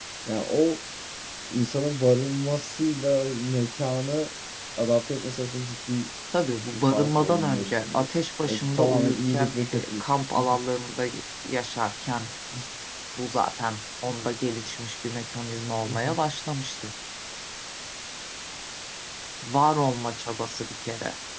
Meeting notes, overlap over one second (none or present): present